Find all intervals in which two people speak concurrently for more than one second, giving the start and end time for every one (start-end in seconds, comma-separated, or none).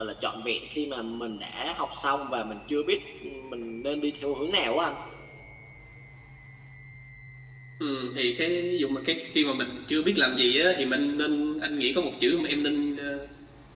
none